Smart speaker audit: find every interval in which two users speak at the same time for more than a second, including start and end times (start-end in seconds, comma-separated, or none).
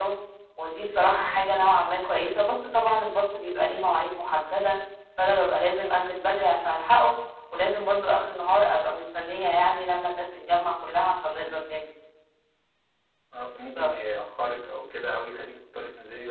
none